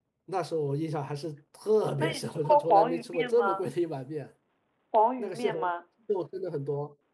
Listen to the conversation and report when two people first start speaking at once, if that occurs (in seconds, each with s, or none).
2.0 s